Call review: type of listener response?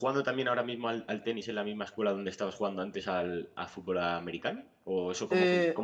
listening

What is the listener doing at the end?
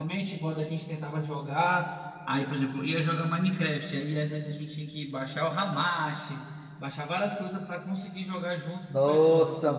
taking over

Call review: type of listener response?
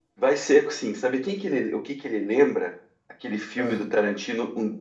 listening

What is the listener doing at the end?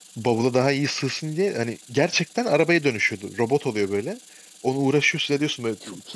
listening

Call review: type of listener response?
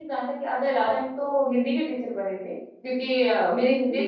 listening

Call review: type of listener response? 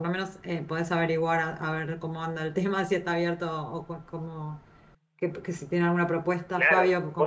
taking over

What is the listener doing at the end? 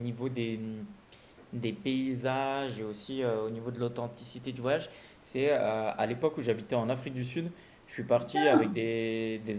listening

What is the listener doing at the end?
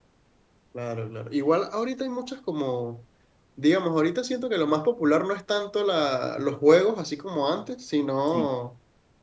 listening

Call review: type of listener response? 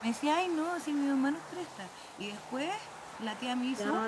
taking over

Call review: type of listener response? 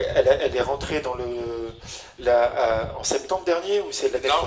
taking over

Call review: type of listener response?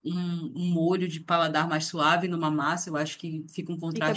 taking over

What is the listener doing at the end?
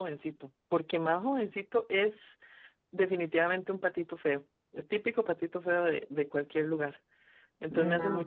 listening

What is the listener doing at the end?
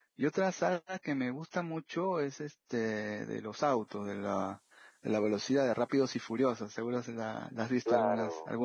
taking over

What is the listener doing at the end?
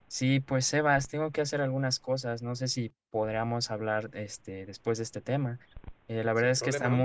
listening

